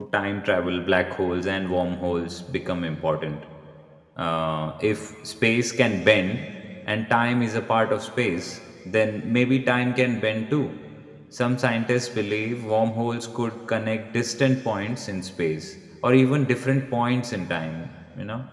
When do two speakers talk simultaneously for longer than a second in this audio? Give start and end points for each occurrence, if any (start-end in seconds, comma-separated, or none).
none